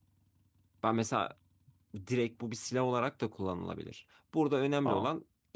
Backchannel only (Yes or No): Yes